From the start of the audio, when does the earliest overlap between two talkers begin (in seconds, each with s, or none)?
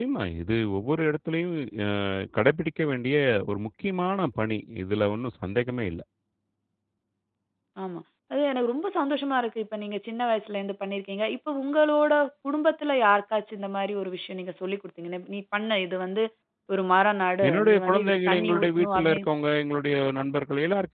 17.5 s